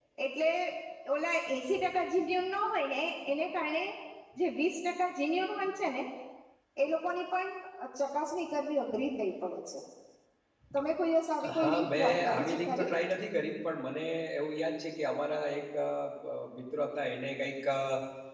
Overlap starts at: 11.6 s

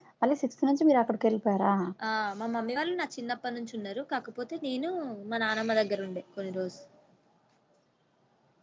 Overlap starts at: none

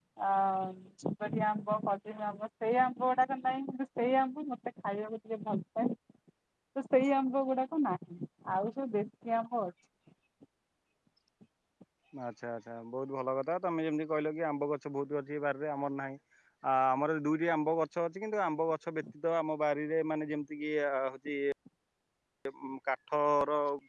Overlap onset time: none

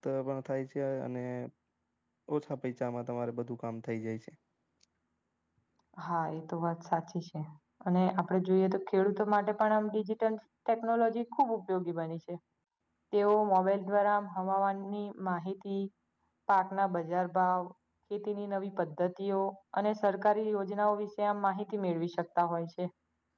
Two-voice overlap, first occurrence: none

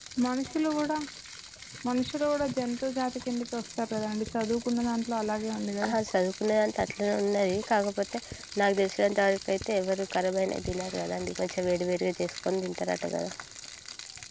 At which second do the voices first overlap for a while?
none

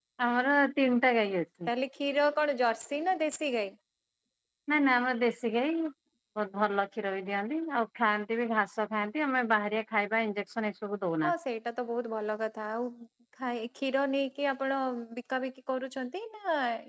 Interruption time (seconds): none

